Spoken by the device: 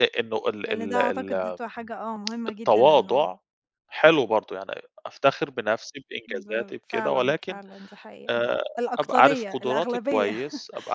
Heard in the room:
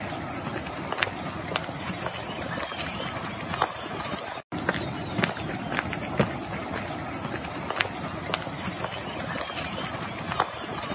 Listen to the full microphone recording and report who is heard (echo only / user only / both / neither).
neither